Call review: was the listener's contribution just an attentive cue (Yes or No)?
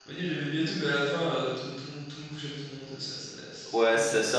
No